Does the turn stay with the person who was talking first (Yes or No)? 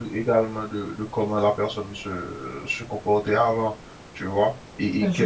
No